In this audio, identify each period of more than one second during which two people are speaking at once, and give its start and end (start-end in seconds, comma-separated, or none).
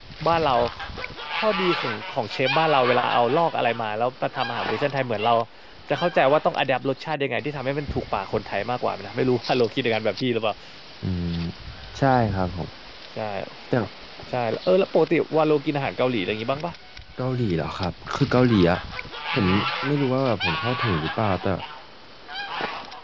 none